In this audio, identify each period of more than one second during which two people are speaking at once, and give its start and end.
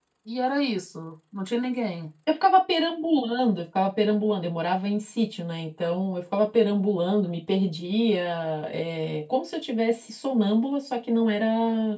none

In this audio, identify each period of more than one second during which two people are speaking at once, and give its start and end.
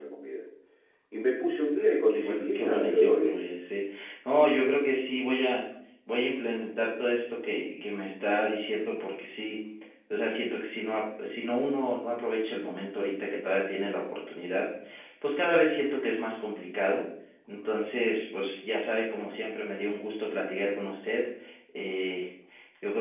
2.1-3.4

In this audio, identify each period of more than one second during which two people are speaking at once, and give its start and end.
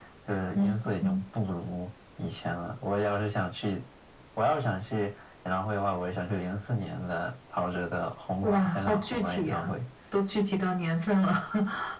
8.4-9.7

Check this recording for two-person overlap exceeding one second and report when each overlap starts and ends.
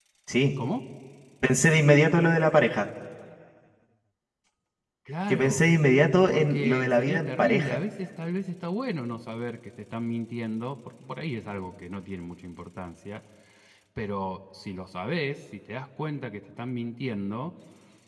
6.3-7.8

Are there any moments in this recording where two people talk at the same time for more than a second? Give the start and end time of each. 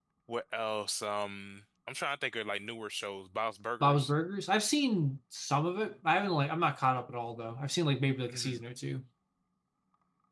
none

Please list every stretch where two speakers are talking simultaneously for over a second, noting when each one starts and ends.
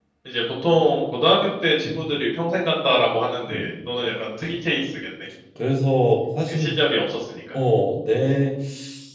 none

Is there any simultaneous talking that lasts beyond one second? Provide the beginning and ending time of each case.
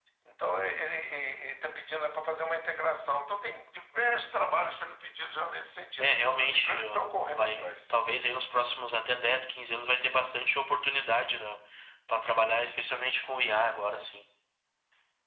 6.0-7.7

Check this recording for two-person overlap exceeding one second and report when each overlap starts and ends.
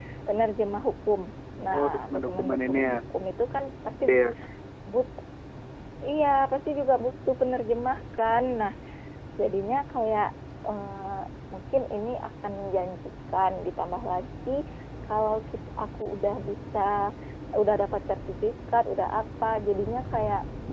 1.7-2.9

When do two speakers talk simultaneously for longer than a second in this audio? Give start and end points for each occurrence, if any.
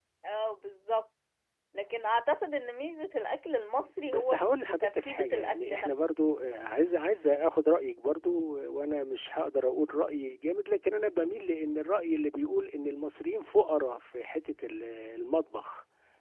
4.0-6.1

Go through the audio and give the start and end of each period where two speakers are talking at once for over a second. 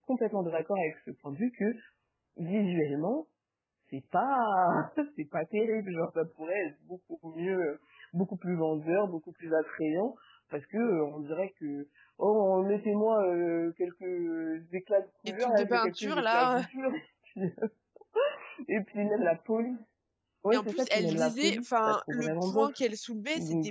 15.3-16.6, 20.5-22.7

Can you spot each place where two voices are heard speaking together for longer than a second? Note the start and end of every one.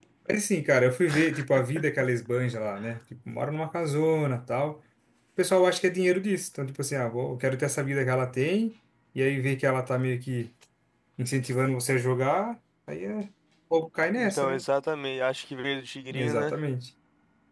none

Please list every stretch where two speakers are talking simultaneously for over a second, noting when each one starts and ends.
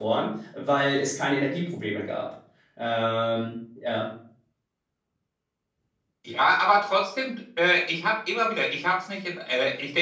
none

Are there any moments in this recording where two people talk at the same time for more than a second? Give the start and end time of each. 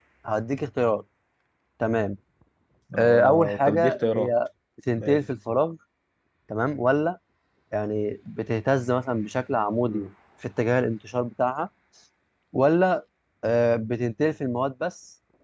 2.9-4.3

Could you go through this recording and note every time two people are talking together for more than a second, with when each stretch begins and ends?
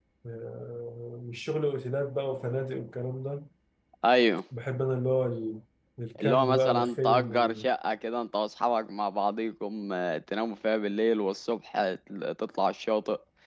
6.2-7.7

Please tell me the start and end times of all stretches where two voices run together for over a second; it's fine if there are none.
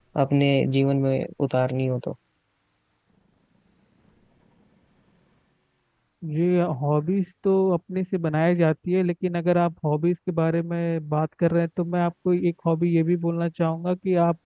none

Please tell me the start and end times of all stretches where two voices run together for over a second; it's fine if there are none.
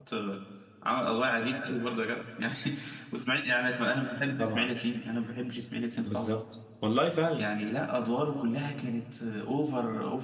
none

